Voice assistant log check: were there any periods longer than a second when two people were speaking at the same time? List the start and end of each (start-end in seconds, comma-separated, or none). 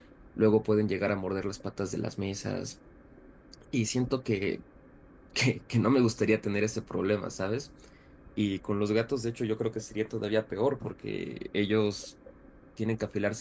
none